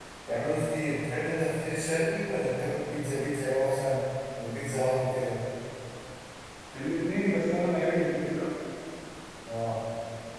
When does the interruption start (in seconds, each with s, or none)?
none